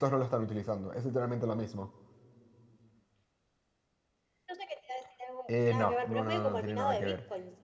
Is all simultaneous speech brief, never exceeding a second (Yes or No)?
No